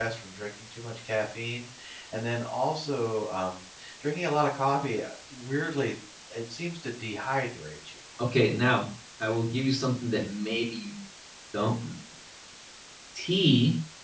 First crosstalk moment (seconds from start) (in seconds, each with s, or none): none